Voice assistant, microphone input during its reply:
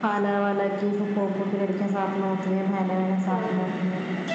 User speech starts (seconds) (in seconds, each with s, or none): 3.3 s